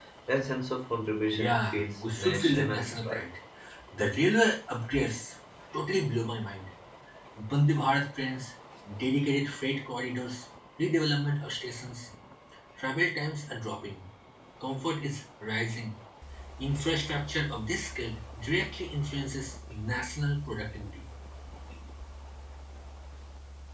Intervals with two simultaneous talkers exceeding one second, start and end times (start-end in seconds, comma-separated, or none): 1.3-3.2